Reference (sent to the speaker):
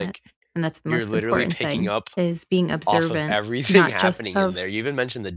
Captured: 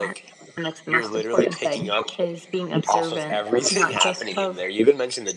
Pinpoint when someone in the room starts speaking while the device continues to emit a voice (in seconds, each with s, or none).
none